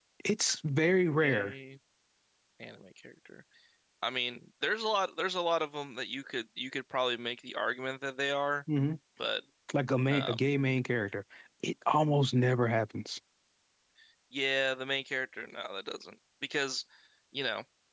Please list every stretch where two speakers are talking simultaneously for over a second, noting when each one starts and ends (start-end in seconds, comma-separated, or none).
none